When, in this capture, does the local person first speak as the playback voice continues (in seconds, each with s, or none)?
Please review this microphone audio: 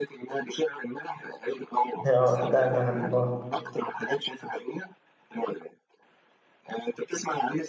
2.0 s